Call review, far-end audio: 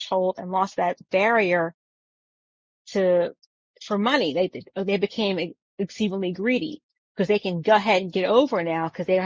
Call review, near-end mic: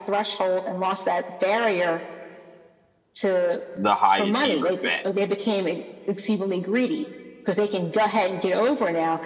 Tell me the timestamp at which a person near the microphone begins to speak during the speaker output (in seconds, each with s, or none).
3.7 s